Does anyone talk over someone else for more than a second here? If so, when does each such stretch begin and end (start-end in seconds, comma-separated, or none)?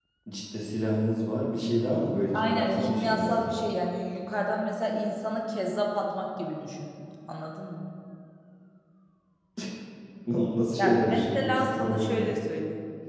2.3-3.6, 10.8-12.2